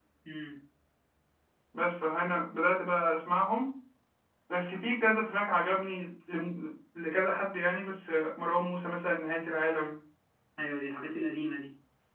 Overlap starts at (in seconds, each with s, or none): none